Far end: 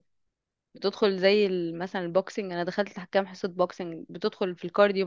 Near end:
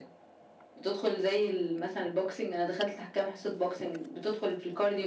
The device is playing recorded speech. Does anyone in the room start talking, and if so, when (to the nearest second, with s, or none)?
none